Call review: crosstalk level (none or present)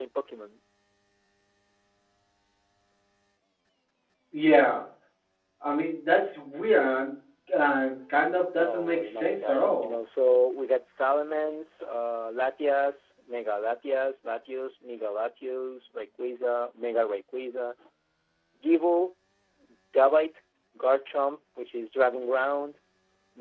present